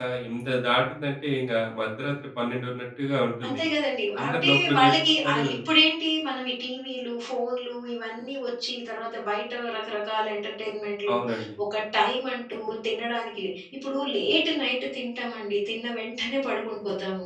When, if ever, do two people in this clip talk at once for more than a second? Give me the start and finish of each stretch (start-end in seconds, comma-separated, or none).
4.2-5.5